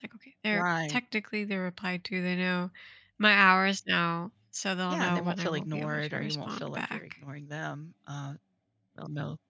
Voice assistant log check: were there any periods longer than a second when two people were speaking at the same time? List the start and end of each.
4.9-7.0

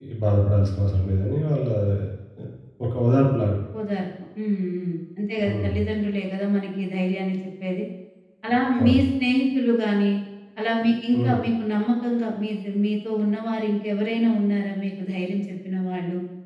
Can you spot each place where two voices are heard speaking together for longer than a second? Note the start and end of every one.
none

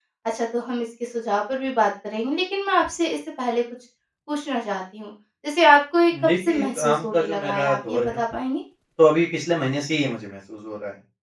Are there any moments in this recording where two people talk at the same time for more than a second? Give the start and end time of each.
6.2-8.2

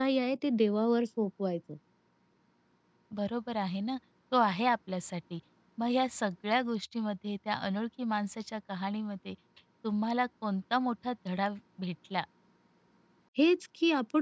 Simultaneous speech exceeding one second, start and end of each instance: none

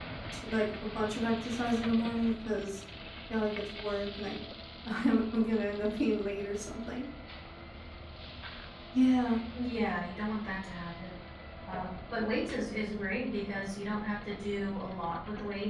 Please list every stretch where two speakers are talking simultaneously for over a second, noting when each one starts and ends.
none

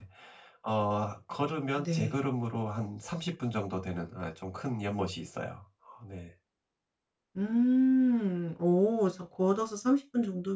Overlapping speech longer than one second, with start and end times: none

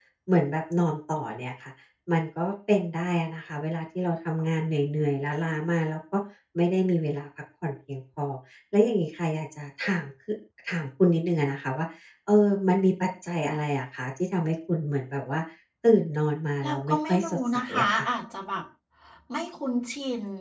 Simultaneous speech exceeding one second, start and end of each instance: 16.6-18.0

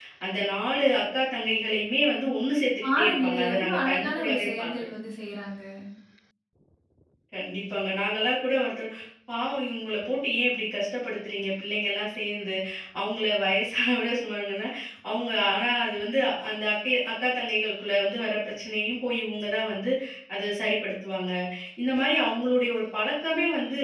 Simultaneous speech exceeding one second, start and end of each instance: 2.8-4.9

